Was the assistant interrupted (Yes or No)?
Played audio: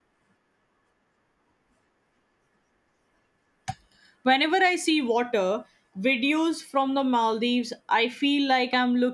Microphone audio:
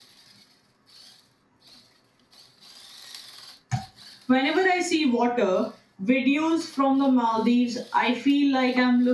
No